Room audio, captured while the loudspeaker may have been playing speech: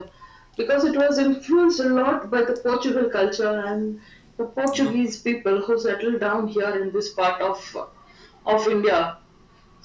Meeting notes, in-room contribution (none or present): present